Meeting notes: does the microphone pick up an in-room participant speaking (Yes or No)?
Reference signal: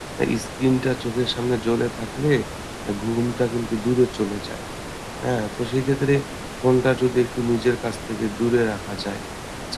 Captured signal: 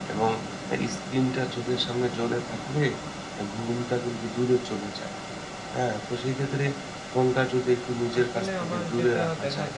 Yes